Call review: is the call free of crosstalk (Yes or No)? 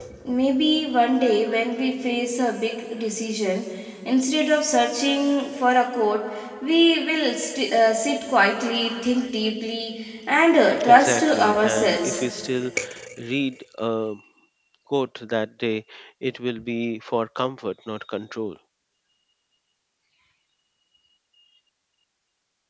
No